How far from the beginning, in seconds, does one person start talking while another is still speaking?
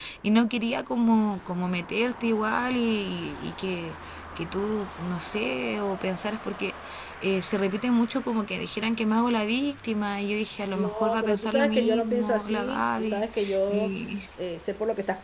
10.7 s

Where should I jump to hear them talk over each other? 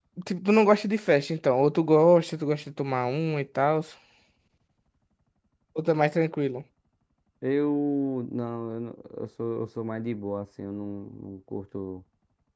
none

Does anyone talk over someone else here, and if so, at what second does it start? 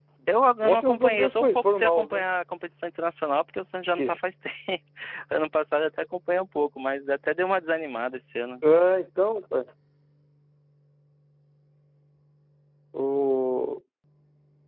0.6 s

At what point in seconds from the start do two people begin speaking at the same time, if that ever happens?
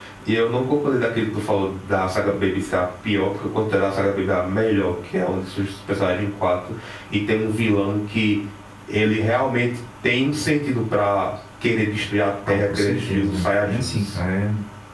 12.4 s

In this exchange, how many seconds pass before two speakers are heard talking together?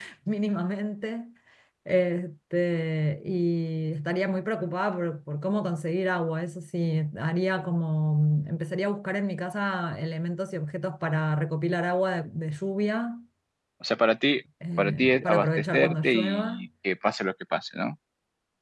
14.6 s

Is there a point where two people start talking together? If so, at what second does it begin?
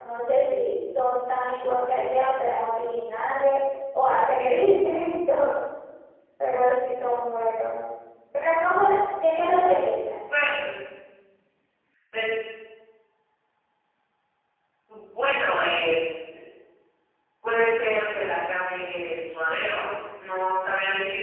none

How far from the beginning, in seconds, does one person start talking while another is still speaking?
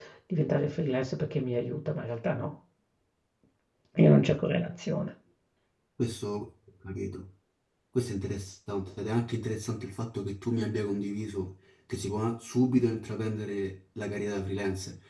none

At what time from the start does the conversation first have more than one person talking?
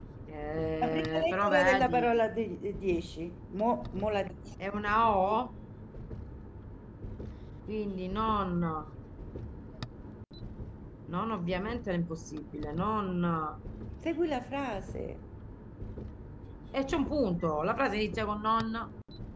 0.8 s

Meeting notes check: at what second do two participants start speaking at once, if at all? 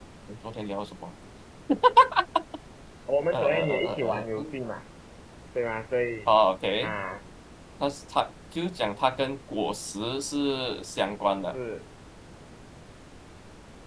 3.3 s

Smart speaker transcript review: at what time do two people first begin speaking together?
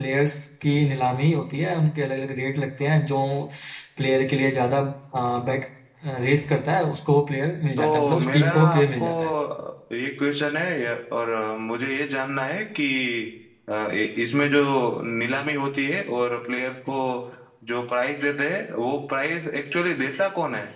7.8 s

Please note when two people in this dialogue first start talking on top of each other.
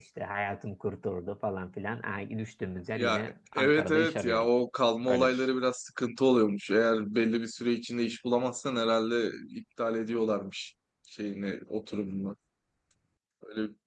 3.0 s

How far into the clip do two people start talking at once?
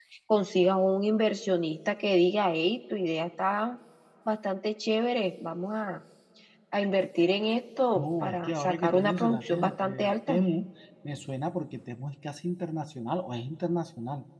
8.0 s

